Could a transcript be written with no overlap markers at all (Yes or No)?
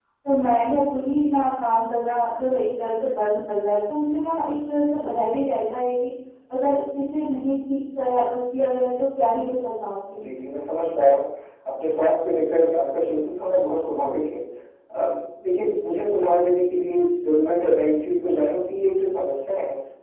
Yes